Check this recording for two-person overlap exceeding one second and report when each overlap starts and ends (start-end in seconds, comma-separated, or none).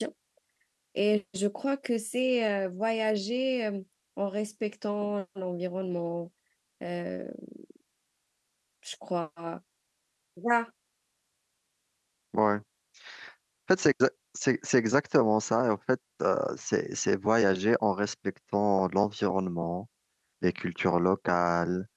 none